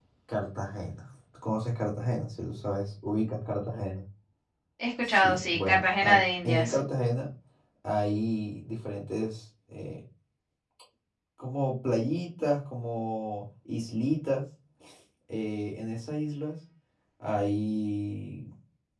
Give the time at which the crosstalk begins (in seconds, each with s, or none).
5.0 s